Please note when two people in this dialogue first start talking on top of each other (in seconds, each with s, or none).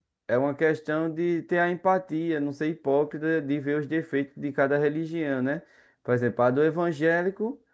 none